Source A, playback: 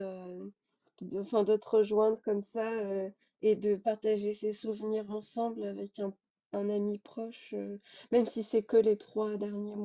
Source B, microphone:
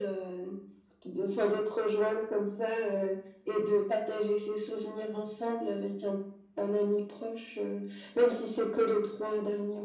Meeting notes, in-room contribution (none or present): none